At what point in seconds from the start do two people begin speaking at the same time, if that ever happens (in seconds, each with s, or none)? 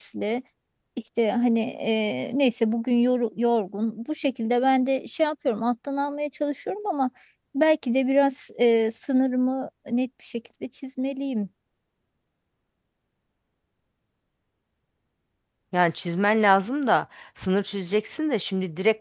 none